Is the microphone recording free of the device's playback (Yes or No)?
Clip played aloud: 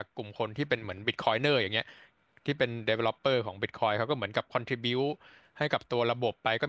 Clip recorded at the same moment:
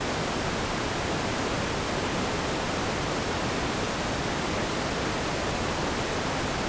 Yes